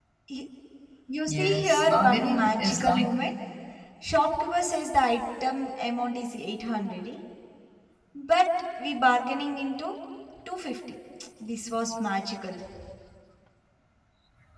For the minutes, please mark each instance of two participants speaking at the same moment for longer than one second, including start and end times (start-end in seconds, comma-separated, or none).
1.3-3.1